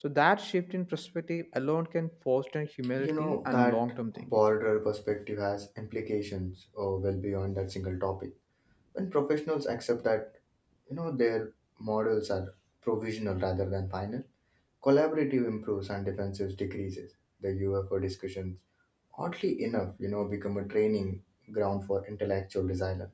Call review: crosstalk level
present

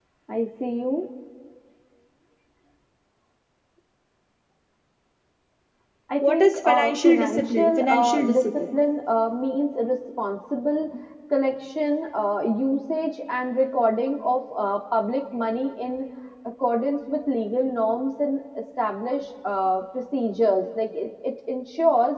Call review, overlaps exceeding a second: present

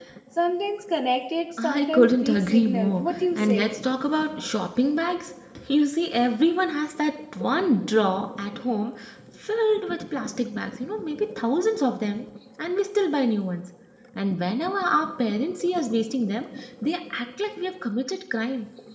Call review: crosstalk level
present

